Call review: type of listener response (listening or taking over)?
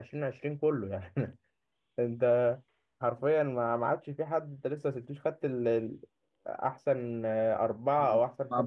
taking over